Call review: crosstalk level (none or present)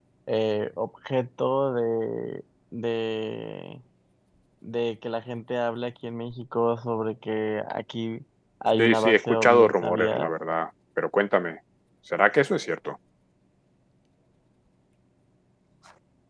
present